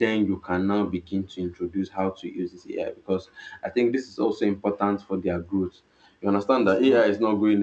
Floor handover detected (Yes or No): No